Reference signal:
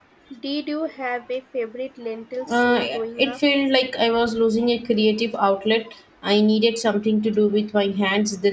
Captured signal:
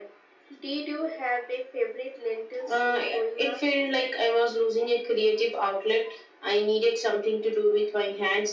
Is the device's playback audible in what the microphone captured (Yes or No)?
Yes